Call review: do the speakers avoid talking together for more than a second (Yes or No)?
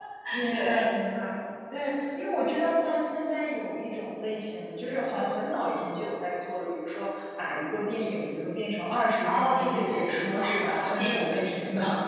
No